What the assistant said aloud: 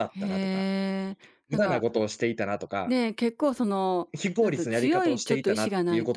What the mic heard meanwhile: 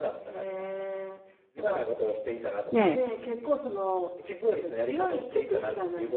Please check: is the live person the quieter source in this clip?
No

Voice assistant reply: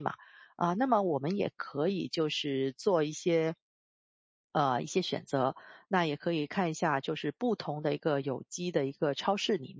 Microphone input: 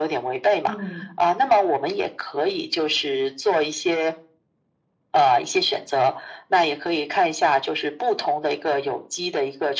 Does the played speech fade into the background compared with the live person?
No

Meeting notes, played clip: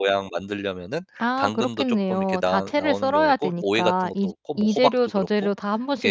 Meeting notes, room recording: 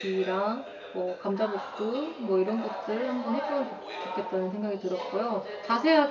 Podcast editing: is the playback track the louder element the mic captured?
No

